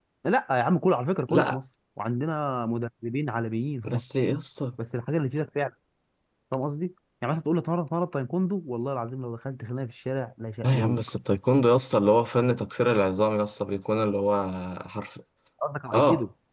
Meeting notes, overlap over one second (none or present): none